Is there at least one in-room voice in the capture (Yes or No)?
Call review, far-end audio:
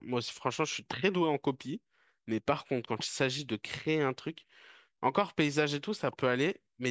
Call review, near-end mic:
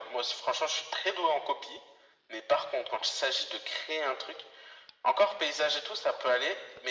No